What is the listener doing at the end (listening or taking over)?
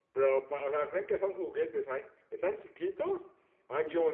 listening